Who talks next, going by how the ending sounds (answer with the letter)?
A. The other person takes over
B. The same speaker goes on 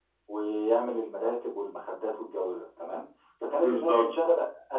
B